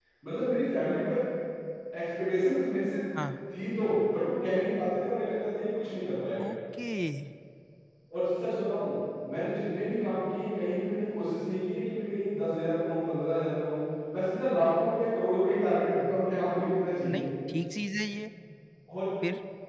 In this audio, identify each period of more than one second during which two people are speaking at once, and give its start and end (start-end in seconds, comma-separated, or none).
none